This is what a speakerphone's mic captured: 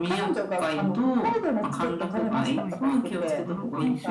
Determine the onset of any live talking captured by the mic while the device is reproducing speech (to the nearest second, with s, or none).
3 s